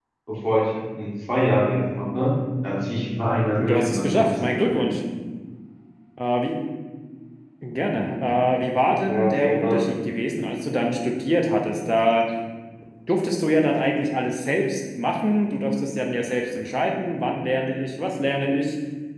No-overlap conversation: No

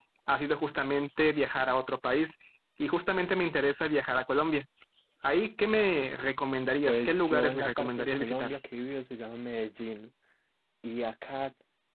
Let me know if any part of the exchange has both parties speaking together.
Yes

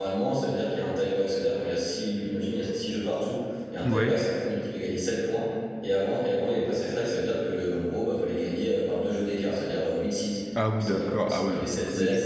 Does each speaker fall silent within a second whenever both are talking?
No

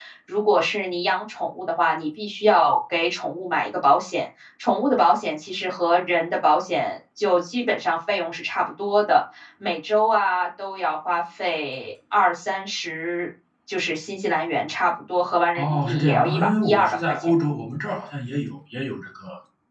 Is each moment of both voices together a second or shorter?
No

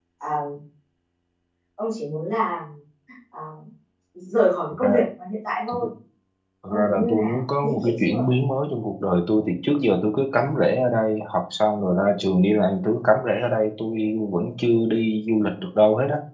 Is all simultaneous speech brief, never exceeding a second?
No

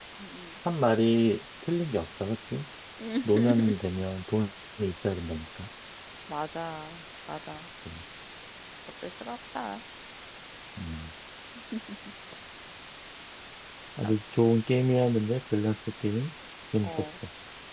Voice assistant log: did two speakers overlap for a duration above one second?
No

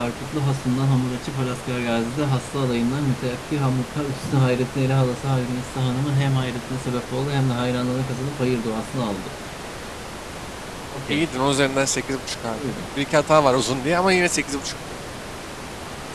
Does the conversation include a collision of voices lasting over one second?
No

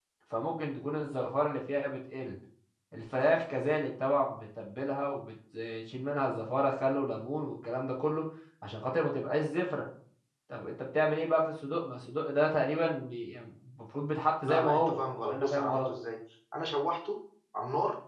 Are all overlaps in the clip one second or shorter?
No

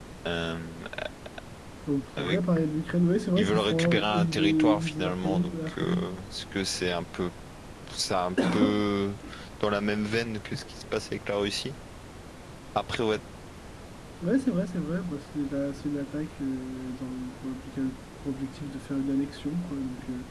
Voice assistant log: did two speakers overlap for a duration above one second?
Yes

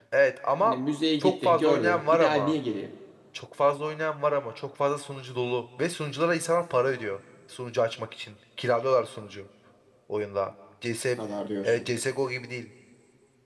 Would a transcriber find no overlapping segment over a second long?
No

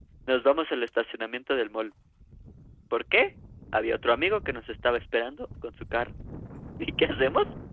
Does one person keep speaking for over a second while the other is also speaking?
No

